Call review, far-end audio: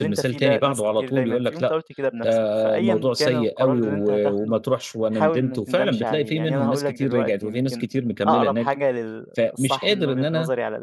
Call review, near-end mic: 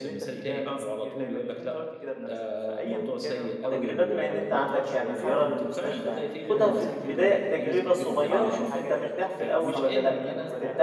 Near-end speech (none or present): present